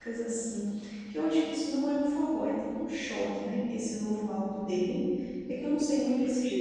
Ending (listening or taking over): taking over